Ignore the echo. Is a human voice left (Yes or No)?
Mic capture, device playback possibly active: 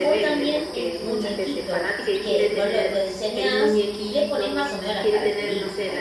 Yes